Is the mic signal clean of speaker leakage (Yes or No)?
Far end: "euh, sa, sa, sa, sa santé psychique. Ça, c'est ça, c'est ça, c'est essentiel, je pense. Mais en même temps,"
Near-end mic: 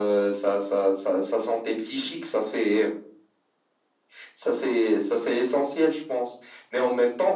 No